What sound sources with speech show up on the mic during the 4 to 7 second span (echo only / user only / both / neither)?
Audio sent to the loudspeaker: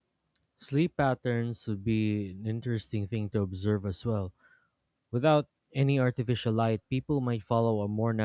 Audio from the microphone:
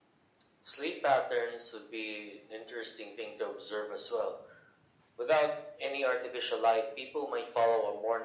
echo only